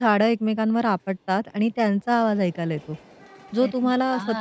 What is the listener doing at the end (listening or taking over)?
listening